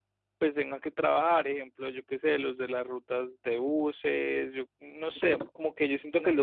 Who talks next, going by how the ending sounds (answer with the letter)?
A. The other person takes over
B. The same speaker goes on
B